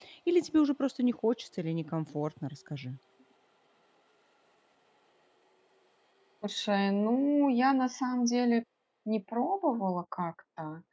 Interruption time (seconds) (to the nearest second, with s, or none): none